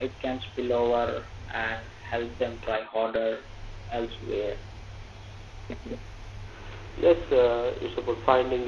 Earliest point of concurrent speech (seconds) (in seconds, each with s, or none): none